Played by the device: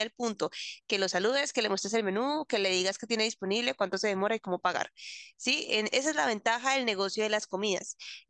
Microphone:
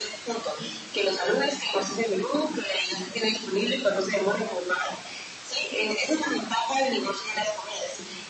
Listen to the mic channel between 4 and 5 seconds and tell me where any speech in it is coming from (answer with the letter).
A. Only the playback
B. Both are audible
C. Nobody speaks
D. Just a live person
A